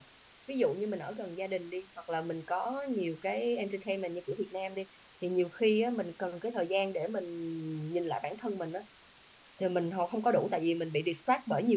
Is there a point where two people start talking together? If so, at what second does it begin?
none

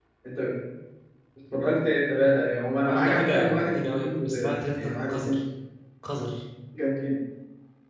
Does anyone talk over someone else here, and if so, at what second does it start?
3 s

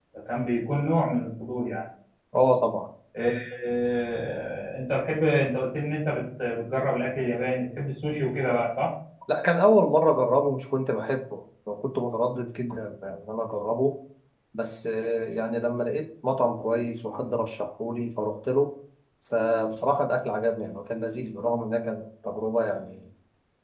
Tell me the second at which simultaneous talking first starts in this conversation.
none

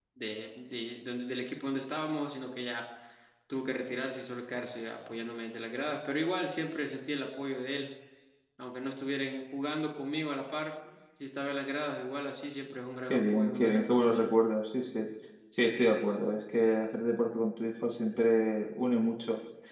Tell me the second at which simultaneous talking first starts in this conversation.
13 s

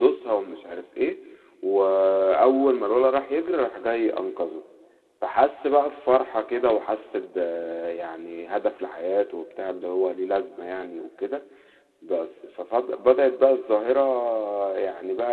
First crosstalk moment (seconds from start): none

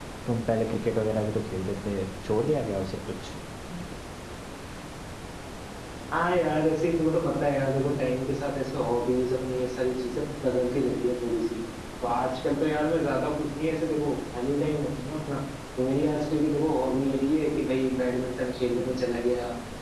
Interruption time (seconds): none

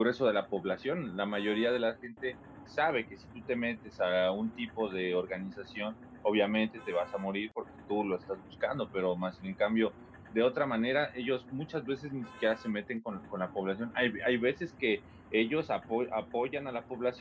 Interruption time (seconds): none

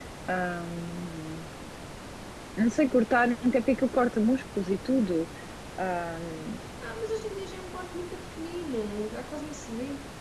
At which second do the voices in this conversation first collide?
none

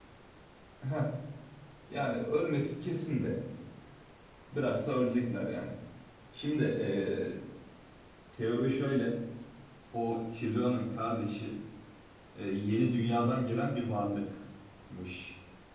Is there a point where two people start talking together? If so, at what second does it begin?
none

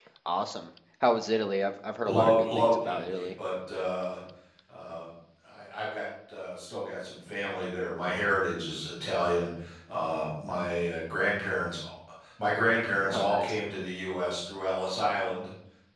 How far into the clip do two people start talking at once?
2 s

